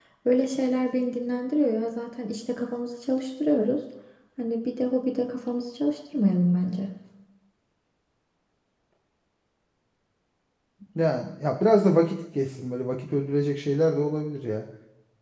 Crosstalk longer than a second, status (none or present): none